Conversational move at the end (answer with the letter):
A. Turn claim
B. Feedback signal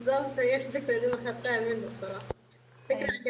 B